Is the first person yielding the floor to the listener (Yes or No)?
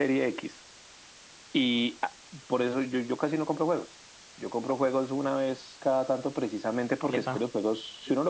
No